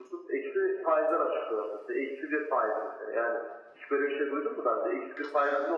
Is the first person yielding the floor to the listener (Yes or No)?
No